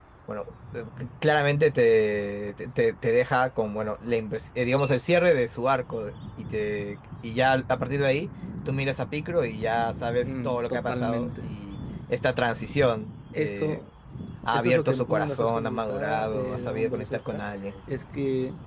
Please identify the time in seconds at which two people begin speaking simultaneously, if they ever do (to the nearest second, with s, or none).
10 s